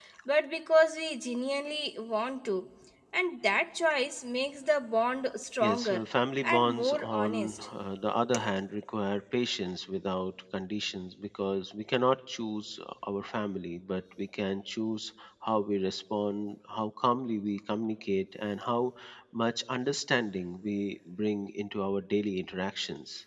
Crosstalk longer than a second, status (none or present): present